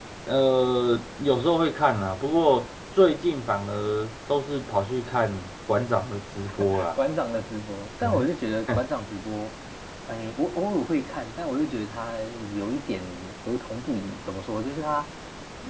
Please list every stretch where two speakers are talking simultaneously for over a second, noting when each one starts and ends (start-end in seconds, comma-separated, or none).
none